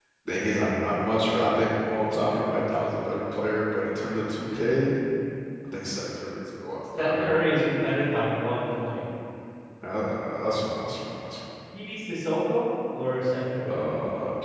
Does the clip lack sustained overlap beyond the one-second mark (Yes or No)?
Yes